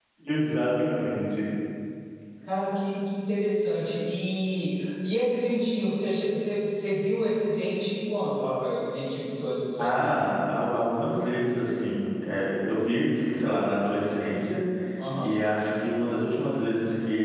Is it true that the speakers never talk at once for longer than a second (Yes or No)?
Yes